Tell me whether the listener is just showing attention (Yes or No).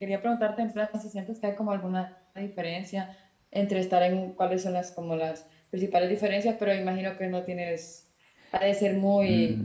No